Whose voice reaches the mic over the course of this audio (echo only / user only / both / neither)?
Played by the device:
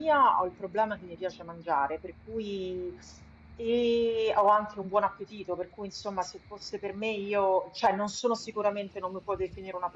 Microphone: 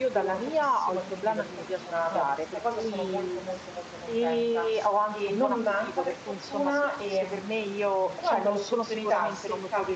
both